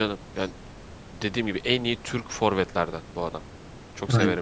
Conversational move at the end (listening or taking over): taking over